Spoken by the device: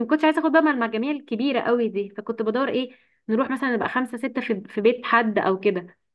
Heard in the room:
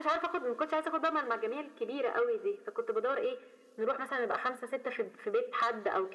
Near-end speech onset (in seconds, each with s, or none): none